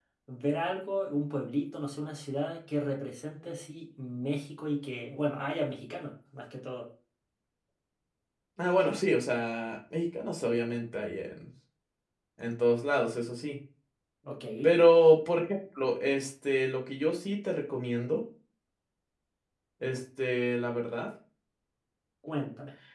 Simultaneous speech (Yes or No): No